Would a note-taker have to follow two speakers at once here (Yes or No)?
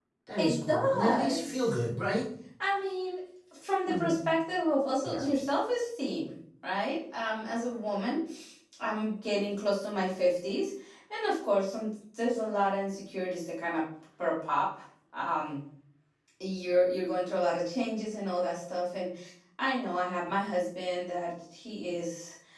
Yes